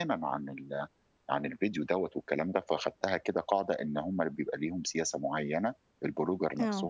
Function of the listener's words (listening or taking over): listening